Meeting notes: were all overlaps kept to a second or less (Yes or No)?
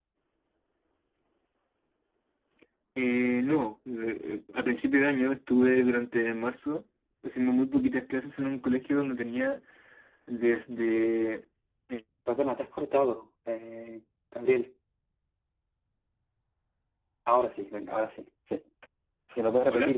Yes